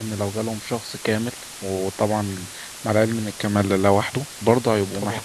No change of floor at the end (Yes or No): Yes